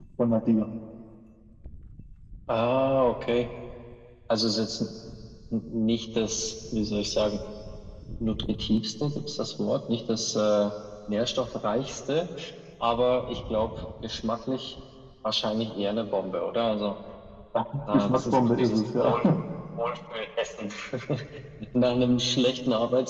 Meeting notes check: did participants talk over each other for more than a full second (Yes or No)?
Yes